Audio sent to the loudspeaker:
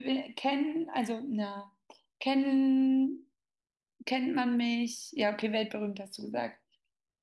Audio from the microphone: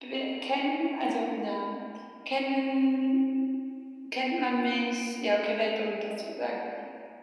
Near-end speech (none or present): none